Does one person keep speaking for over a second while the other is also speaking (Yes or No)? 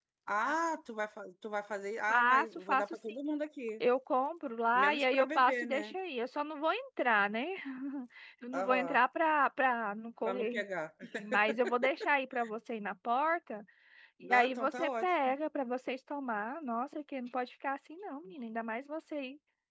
Yes